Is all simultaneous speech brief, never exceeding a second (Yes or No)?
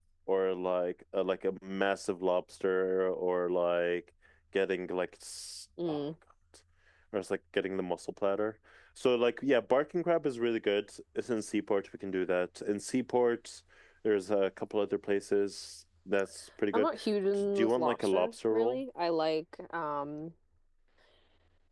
No